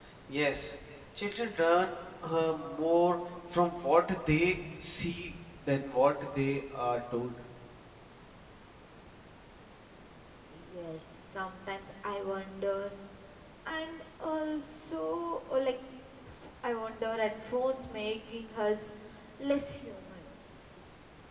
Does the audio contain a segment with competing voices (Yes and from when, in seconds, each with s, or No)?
No